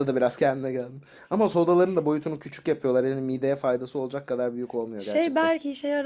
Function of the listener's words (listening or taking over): taking over